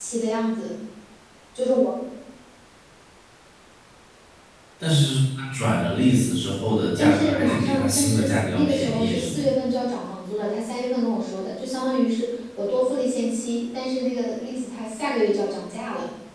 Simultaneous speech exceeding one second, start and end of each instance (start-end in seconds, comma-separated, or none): 7.0-9.4